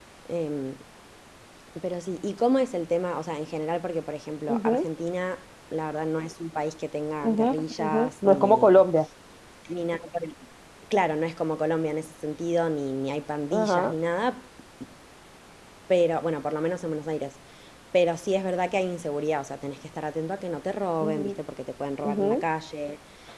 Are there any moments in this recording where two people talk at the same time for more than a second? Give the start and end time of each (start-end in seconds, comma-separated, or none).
7.2-8.7